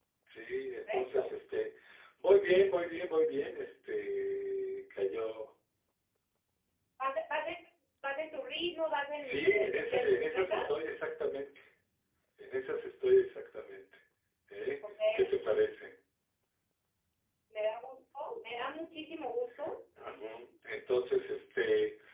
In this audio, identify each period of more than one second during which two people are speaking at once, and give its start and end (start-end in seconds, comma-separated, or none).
9.2-10.7